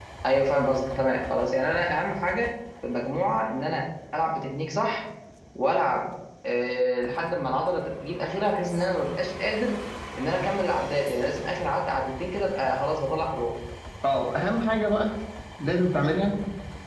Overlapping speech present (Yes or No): No